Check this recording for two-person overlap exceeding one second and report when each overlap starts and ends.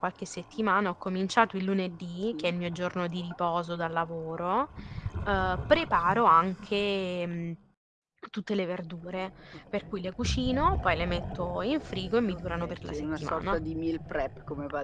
12.2-13.6

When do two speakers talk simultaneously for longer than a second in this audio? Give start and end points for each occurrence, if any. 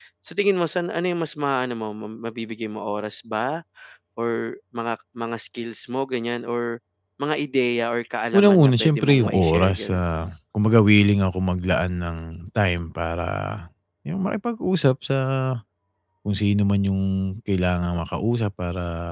8.3-10.0

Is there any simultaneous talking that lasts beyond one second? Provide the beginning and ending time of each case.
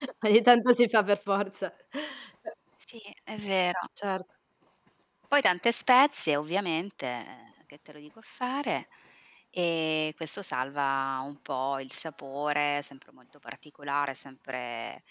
none

